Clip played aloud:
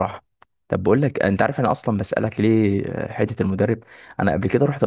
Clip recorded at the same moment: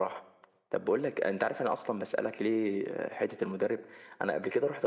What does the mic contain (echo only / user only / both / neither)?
echo only